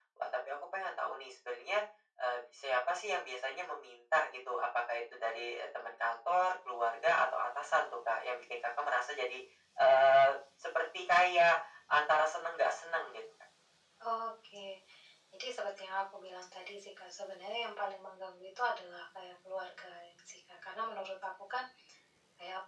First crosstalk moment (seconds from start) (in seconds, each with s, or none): none